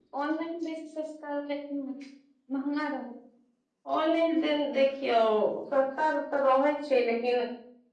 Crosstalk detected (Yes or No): No